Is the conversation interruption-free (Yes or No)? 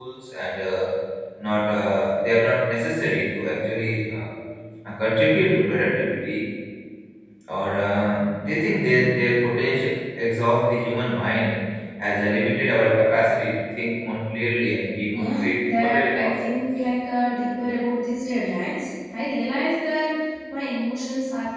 No